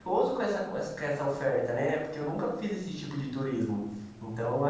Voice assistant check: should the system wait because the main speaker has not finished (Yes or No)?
Yes